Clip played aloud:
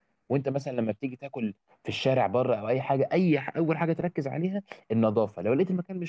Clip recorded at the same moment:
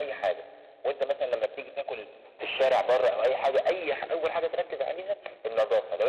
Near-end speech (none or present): none